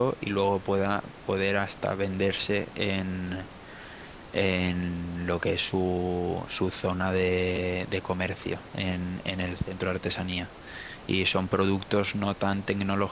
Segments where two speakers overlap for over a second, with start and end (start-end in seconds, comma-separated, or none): none